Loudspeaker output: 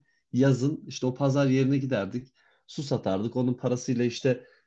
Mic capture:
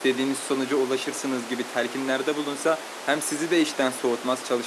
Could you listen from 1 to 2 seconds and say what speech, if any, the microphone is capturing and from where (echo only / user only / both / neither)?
user only